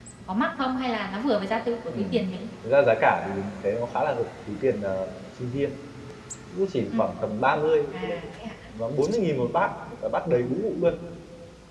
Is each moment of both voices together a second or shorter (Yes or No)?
Yes